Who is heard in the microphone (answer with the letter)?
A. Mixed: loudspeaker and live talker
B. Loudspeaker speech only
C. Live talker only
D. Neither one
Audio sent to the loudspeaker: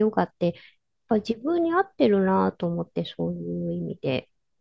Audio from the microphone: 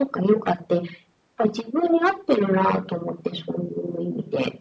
B